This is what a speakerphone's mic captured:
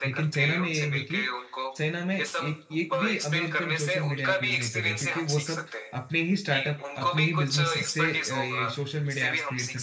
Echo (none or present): present